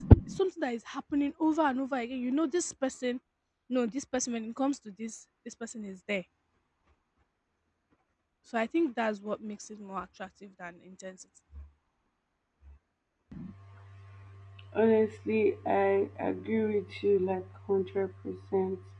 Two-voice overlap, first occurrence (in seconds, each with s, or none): none